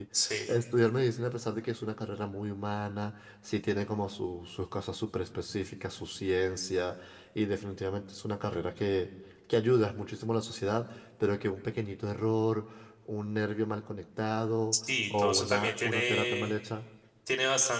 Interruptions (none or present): present